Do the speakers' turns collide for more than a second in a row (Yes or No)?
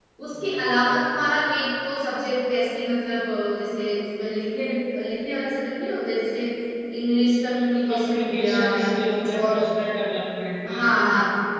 Yes